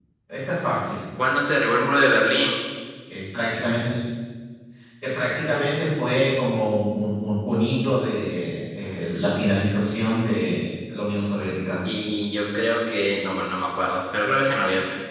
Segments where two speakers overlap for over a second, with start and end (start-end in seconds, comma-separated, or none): none